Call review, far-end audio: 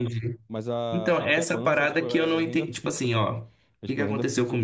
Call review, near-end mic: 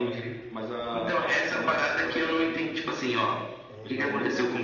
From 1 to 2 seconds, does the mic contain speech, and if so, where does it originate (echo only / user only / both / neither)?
echo only